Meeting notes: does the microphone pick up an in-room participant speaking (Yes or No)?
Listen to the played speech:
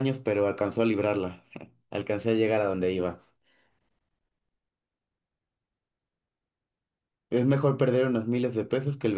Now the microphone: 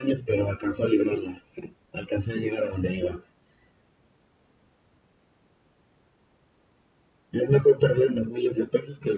No